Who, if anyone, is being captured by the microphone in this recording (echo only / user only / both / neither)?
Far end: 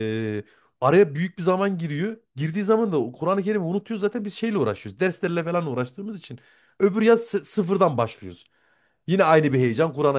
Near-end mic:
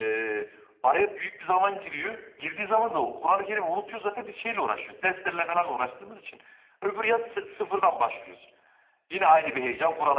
echo only